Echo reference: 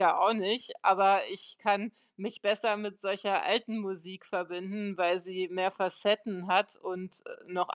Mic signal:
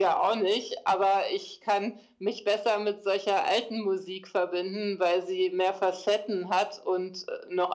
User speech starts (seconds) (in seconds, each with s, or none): none